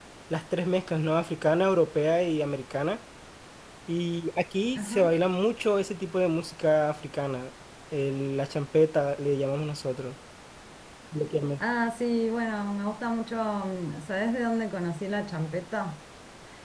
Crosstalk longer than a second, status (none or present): none